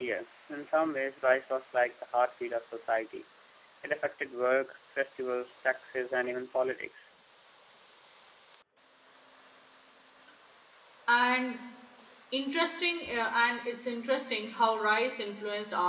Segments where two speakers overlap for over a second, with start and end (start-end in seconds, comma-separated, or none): none